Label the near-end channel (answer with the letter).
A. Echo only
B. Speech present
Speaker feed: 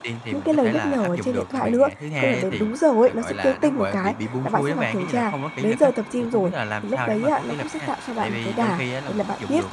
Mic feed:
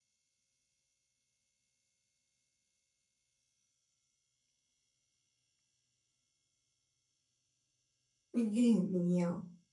B